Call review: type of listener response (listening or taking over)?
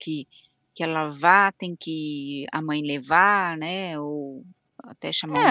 taking over